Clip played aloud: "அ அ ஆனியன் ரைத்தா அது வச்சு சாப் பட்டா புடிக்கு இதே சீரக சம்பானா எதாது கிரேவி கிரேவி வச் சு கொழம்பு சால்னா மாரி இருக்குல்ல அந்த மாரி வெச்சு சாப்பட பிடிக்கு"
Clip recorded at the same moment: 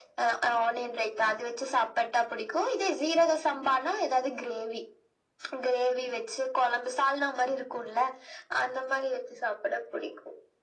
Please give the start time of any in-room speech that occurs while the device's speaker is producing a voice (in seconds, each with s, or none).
none